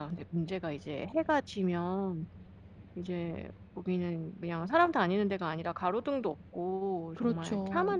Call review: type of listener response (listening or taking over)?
listening